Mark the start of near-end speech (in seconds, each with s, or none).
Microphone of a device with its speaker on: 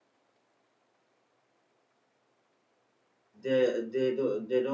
3.4 s